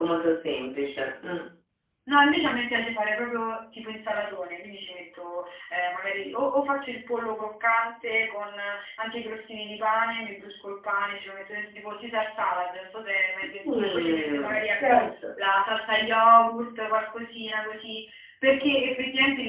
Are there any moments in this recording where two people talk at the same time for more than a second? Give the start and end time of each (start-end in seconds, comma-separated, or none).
13.7-15.0